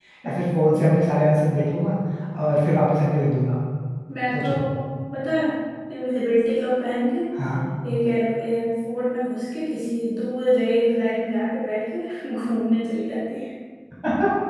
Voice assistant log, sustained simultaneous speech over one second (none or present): none